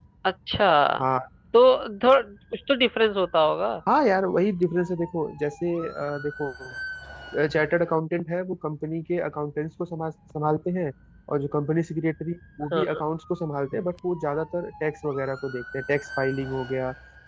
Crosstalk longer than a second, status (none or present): none